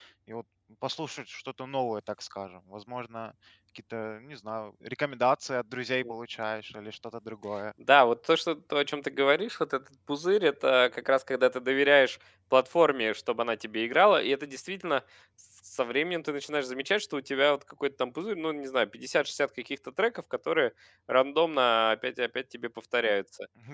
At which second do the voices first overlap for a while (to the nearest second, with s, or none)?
none